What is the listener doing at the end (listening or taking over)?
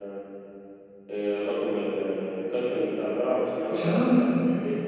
listening